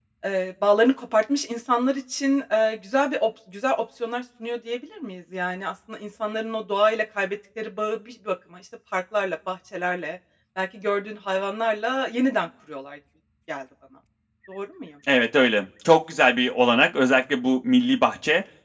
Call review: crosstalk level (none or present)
none